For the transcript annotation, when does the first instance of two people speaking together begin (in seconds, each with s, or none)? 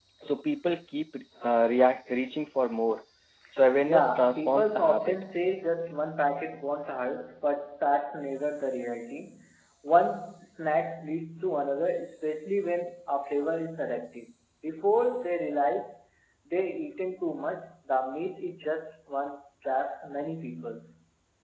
3.9 s